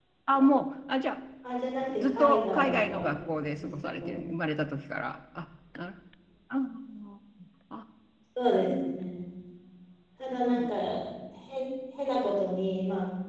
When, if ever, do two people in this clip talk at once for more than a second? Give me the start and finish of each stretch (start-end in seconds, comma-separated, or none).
2.0-4.2